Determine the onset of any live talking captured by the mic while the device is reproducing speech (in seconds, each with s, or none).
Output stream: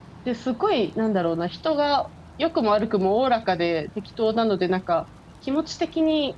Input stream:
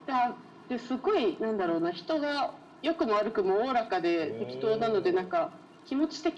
4.2 s